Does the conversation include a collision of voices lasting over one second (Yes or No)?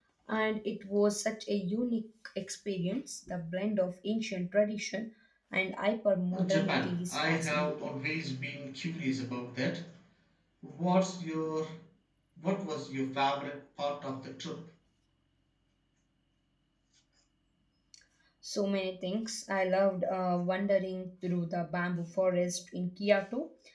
Yes